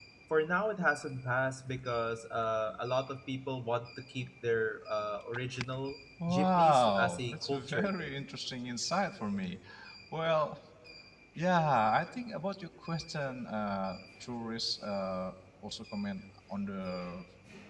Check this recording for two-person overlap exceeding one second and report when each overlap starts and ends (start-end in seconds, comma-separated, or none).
6.3-8.1